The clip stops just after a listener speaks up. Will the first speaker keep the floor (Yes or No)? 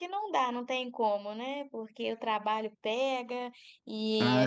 Yes